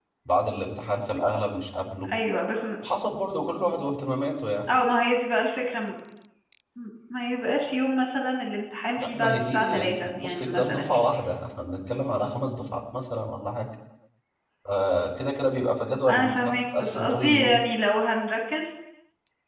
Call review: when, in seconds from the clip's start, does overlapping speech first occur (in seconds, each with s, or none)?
9.0 s